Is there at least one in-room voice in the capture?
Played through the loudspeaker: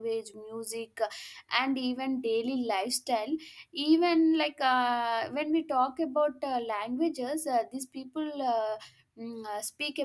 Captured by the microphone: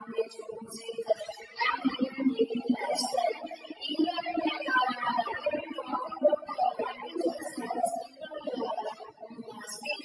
No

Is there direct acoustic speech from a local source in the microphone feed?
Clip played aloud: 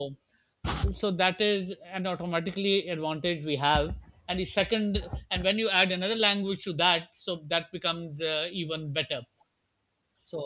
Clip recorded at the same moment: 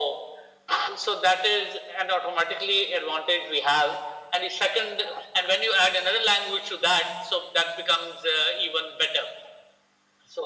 No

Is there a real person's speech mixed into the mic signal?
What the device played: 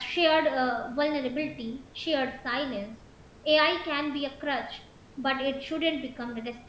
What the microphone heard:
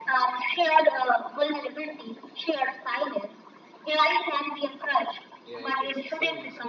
Yes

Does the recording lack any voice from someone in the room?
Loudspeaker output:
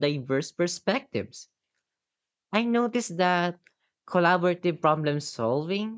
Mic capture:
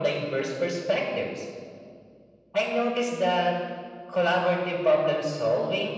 Yes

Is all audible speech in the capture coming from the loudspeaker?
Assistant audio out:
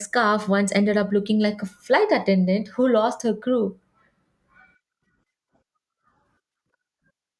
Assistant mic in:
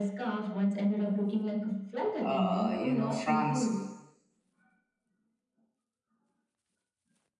No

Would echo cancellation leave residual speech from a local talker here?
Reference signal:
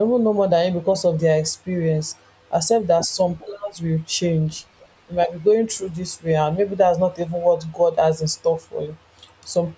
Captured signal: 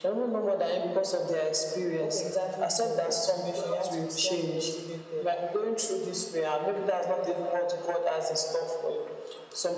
Yes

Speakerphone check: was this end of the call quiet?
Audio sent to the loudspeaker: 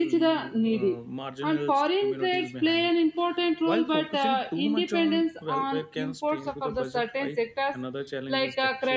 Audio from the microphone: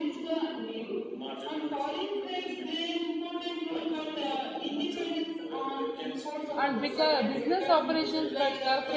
No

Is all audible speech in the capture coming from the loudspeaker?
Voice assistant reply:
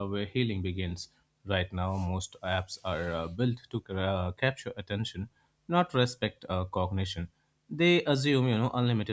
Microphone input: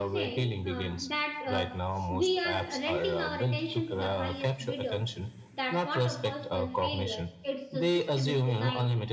No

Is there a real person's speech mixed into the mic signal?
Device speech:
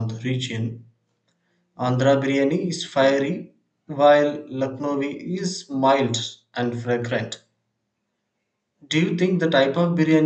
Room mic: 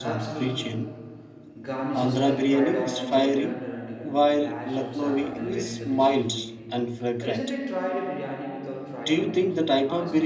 Yes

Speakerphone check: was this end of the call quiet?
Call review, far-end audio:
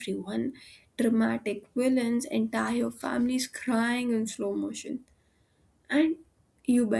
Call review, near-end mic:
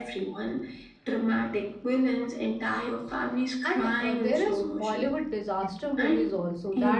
No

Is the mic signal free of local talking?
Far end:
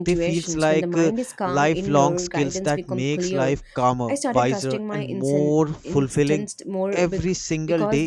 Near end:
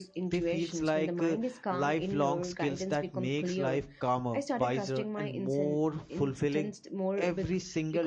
Yes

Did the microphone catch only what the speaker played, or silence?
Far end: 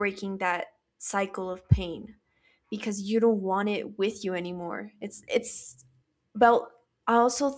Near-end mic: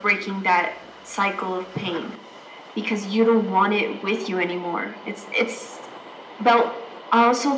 Yes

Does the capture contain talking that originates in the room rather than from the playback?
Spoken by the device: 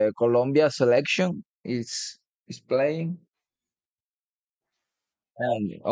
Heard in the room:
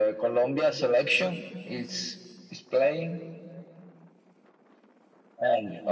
No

